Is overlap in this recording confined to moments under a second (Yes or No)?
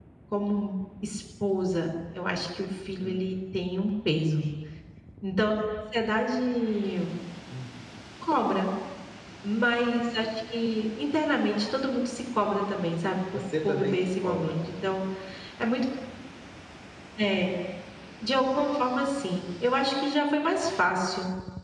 No